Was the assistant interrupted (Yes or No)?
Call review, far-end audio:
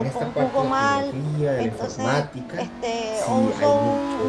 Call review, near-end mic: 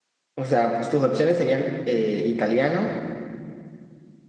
Yes